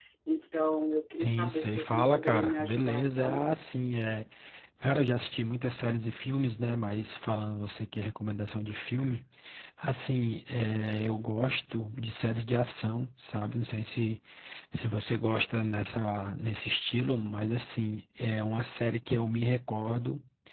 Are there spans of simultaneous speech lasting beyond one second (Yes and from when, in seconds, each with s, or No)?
Yes, from 1.2 s